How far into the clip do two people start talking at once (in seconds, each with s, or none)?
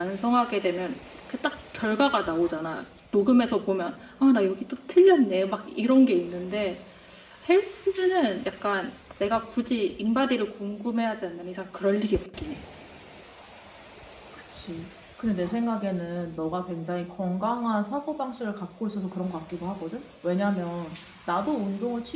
none